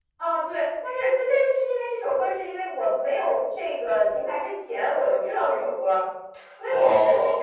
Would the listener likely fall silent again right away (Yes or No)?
Yes